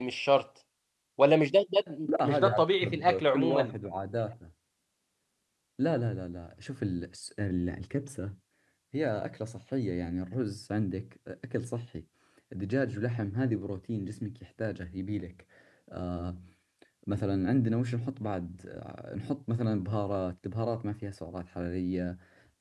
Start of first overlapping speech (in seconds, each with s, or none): 2.0 s